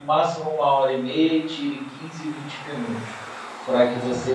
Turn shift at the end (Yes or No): No